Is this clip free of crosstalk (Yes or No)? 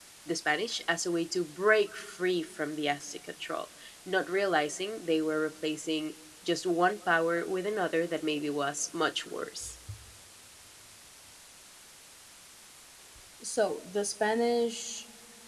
Yes